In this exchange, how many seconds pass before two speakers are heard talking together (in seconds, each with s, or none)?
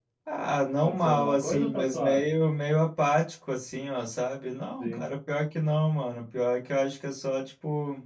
0.8 s